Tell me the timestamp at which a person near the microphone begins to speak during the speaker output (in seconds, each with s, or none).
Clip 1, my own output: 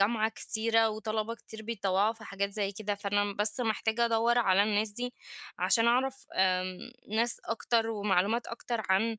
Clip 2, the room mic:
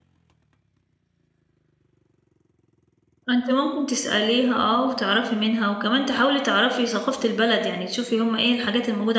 3.3 s